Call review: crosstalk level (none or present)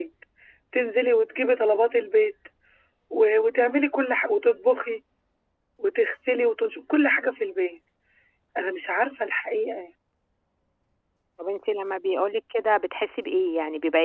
none